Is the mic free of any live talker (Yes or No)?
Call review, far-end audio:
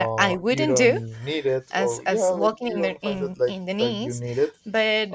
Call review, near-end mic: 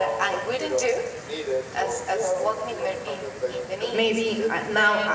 No